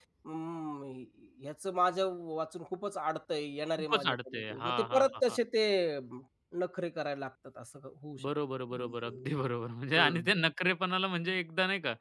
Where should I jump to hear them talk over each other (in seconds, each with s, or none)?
3.8 s